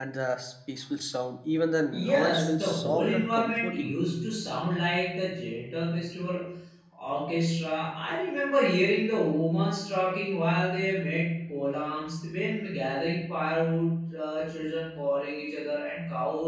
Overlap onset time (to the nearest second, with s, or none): 2 s